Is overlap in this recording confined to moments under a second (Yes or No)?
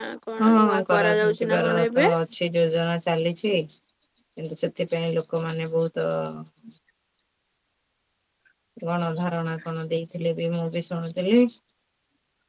No